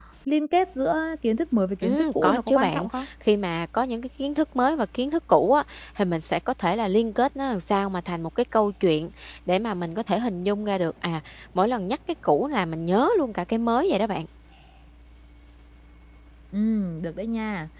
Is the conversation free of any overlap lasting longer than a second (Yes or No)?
No